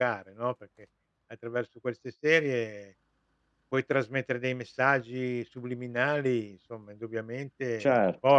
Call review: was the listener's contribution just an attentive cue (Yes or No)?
No